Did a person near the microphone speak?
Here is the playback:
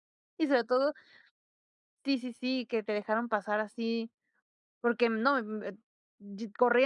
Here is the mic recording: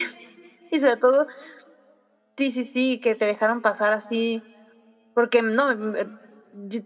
No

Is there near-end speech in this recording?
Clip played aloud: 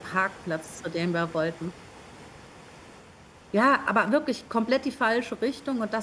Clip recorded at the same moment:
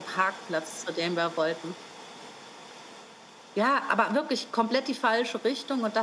No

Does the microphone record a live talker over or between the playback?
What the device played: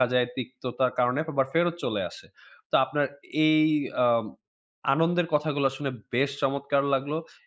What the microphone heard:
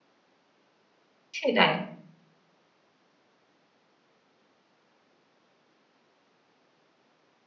Yes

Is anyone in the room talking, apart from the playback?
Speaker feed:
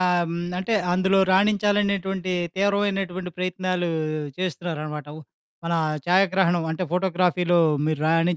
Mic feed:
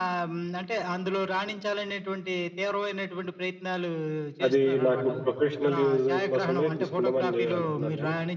Yes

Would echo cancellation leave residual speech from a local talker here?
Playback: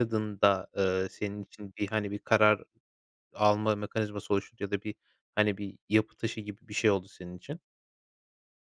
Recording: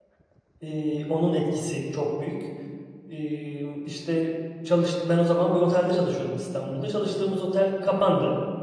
Yes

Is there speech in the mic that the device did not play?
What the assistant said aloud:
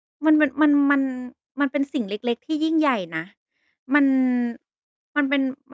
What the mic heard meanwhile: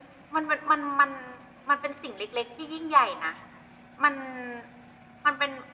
No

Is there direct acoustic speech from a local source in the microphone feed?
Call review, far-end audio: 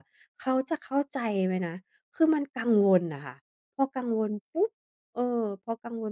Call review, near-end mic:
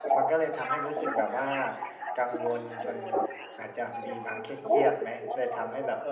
Yes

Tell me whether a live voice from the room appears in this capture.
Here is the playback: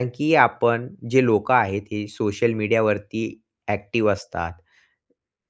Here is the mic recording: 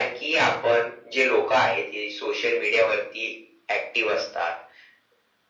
No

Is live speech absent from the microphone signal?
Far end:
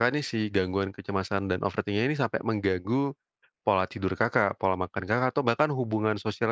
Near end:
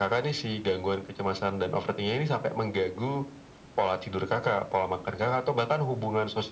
Yes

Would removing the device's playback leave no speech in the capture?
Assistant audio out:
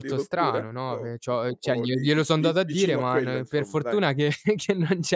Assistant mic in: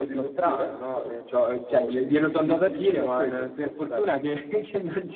Yes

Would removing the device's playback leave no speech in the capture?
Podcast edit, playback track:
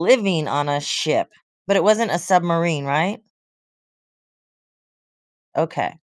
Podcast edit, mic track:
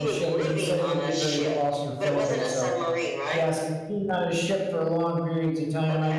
No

